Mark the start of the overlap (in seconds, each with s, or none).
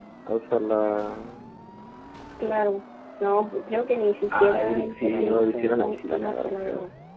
4.3 s